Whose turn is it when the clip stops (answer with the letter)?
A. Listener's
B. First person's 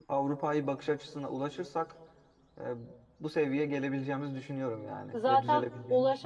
A